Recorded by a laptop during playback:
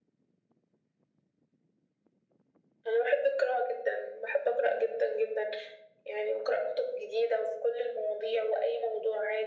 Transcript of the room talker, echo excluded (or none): none